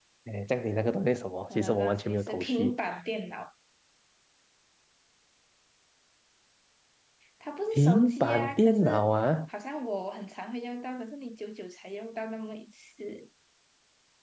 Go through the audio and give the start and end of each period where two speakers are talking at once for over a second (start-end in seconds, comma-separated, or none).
1.6-2.8, 7.7-9.0